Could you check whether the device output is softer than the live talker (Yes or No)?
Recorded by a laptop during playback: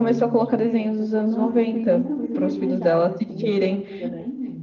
No